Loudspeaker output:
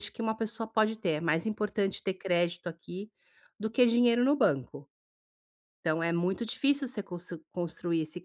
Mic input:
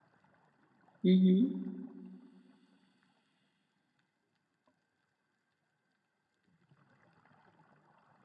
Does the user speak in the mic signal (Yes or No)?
Yes